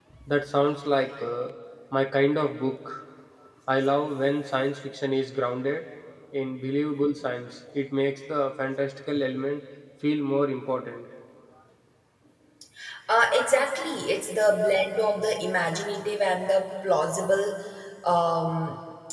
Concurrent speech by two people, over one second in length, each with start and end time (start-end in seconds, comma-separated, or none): none